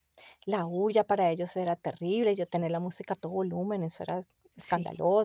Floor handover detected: Yes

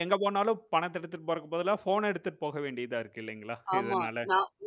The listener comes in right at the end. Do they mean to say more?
Yes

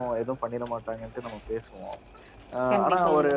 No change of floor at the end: Yes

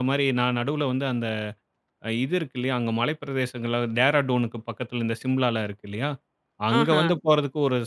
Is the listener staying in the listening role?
Yes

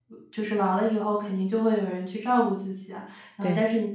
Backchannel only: Yes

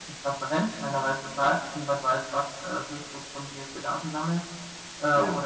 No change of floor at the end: Yes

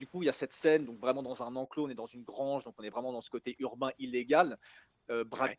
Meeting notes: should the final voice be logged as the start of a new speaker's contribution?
No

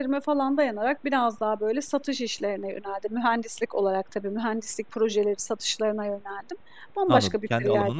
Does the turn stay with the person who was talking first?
No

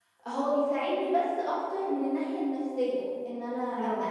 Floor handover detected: No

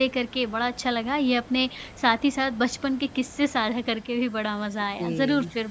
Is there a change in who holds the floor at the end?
No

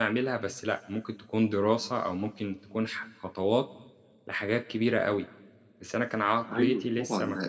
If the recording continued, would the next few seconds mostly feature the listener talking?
Yes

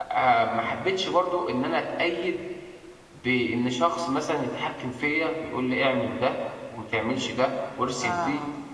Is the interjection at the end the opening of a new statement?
Yes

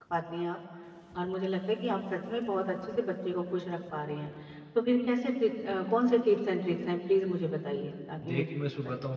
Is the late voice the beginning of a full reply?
Yes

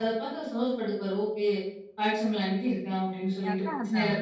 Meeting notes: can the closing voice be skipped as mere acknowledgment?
Yes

